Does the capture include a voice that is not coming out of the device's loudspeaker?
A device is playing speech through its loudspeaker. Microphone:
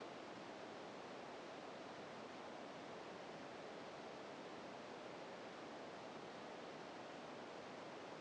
No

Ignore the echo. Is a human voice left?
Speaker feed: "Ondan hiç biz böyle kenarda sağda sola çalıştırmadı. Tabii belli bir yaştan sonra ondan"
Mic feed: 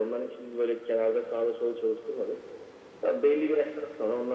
No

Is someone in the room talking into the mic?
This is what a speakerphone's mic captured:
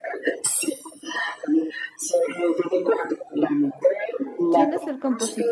Yes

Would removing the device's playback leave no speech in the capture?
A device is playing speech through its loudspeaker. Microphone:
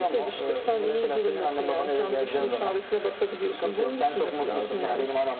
No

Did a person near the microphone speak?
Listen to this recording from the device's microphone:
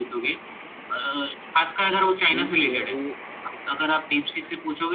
Yes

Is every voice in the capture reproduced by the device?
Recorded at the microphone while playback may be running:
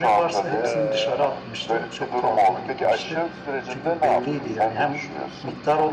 No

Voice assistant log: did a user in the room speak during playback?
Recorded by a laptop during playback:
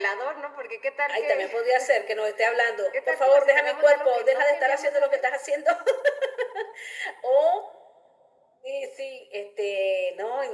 No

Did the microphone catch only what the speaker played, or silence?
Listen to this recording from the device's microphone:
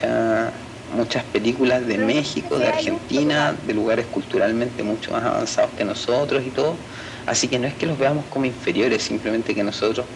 No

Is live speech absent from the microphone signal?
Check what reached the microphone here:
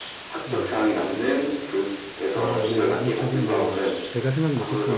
No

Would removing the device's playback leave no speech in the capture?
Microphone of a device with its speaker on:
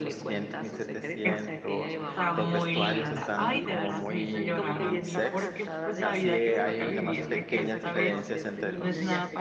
No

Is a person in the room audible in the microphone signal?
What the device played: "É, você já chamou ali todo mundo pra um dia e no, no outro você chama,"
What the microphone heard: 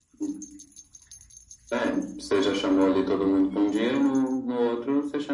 No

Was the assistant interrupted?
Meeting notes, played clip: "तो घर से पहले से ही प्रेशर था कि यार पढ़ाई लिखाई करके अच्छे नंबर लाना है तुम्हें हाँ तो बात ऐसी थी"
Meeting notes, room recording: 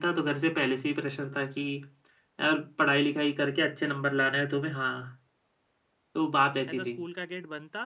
Yes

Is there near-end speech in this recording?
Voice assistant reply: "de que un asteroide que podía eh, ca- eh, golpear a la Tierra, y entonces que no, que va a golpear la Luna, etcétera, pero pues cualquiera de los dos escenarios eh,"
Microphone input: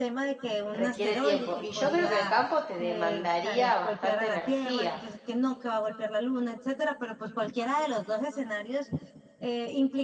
Yes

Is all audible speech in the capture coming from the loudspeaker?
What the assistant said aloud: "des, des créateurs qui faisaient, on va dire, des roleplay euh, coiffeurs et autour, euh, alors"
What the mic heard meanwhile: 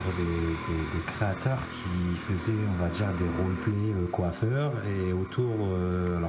Yes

